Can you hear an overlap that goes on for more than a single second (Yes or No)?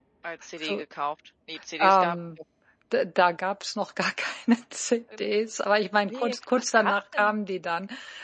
Yes